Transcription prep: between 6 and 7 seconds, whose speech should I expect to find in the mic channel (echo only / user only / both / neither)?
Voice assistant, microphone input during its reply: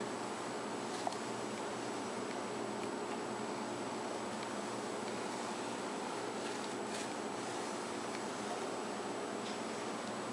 neither